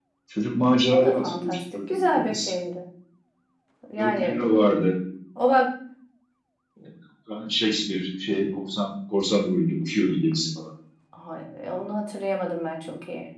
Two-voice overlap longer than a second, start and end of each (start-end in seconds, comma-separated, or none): 0.9-2.5